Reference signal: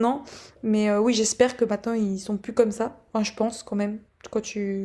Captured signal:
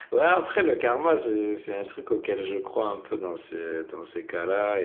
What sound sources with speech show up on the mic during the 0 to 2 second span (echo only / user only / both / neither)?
user only